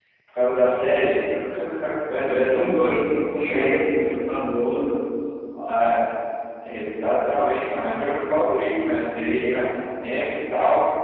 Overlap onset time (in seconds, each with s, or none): 2.5 s